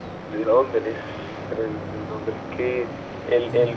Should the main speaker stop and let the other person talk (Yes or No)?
No